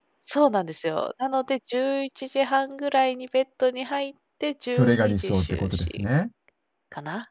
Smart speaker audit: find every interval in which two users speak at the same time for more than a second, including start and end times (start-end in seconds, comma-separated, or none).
4.7-6.0